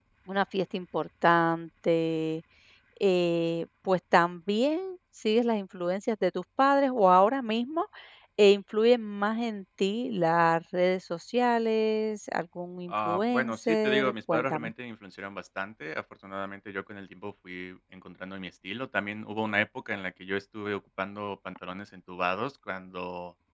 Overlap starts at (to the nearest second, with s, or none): 13 s